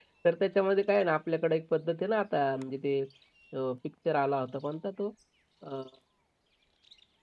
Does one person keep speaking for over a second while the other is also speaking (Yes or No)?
No